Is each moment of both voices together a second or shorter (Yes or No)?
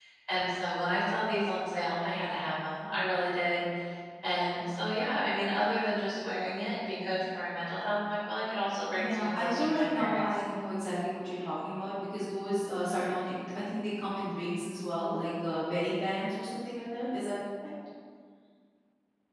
No